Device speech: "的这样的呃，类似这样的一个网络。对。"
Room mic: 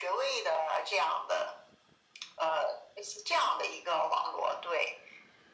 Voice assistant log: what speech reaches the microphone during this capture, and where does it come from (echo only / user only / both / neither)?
echo only